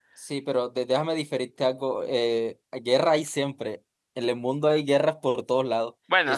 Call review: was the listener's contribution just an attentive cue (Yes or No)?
Yes